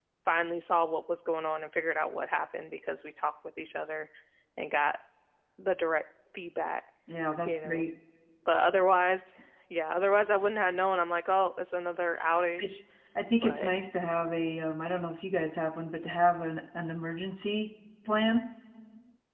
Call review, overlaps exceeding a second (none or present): none